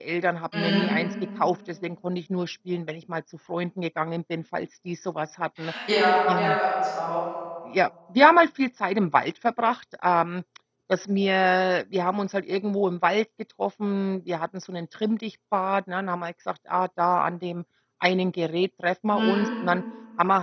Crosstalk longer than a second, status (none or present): none